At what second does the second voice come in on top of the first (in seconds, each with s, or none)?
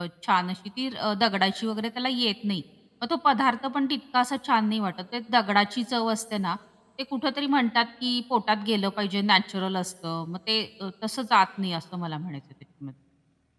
none